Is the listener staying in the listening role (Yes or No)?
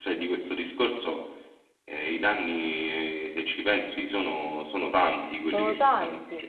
No